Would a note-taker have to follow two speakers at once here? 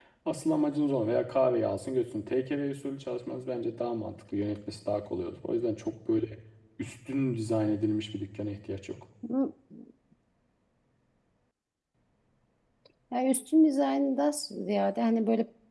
No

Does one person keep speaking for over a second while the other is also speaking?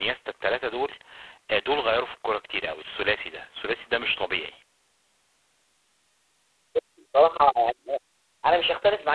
No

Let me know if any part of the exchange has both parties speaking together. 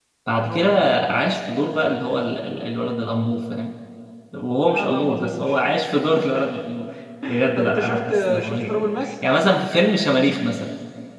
Yes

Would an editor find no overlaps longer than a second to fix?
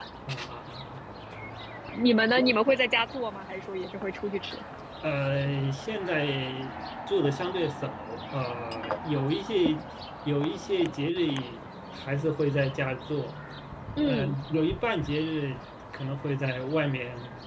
Yes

